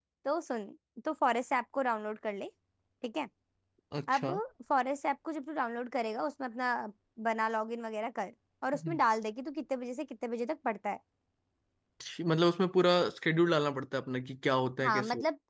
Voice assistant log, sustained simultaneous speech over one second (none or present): none